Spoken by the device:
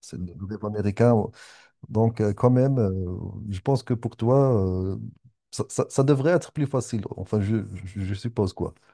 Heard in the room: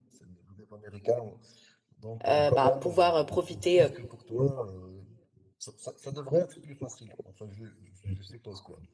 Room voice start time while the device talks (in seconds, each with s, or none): 2.2 s